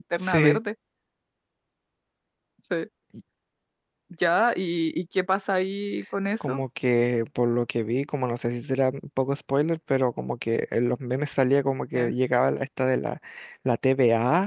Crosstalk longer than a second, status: none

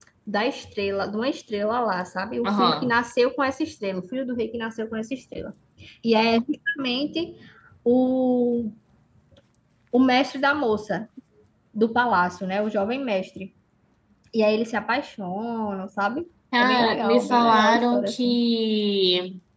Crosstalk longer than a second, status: present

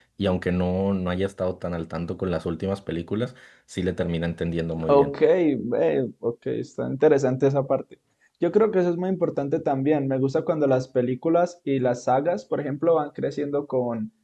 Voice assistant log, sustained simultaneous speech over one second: none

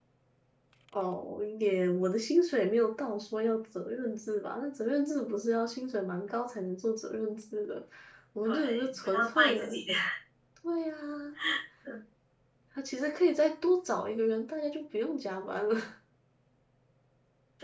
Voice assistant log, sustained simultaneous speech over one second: present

